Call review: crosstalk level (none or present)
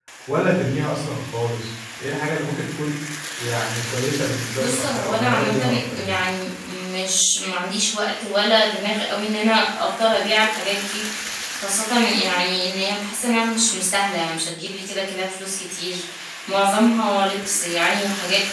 present